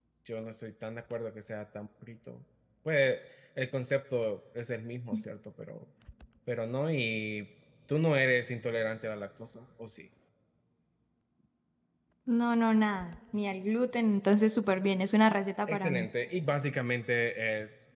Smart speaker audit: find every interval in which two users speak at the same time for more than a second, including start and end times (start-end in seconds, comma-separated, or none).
none